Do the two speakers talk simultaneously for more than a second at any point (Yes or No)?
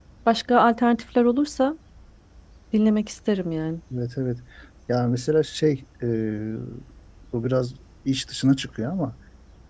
No